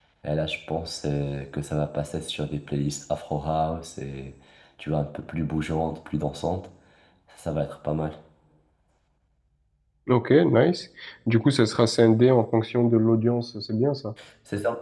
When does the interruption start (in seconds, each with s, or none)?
none